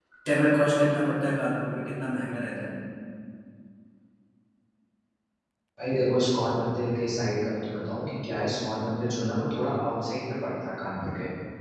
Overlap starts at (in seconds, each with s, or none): none